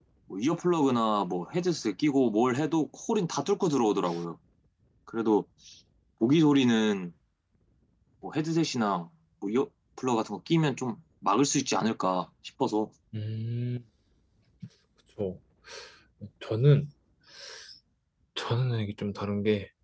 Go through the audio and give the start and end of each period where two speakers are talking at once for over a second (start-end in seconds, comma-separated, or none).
none